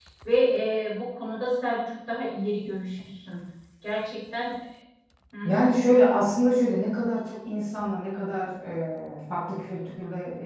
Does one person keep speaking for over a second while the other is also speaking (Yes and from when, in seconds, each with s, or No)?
No